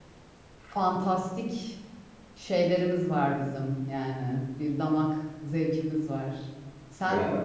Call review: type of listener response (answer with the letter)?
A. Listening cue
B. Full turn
A